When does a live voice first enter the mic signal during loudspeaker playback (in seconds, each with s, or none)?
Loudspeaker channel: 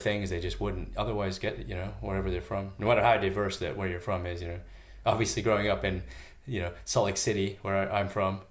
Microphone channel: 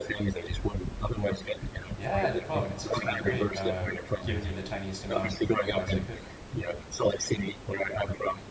2.0 s